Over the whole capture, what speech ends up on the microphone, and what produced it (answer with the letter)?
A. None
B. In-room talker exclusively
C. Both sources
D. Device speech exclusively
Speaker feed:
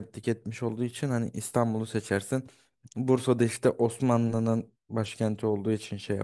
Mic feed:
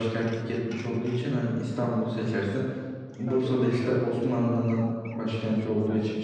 C